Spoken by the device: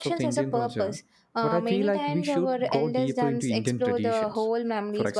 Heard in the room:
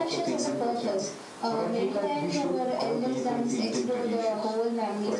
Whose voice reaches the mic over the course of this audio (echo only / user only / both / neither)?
echo only